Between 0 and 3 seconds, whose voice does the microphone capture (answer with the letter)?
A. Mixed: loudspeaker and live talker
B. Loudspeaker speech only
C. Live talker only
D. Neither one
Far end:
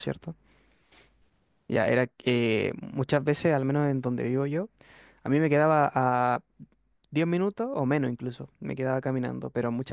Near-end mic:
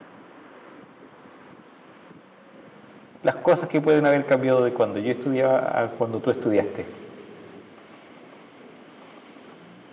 D